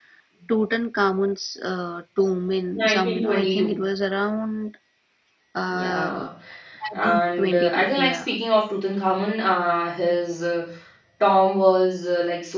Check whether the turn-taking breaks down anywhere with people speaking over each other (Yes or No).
Yes